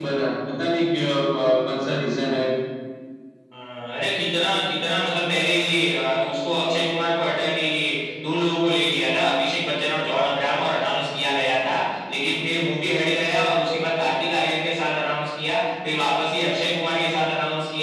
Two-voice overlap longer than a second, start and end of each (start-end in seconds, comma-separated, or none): none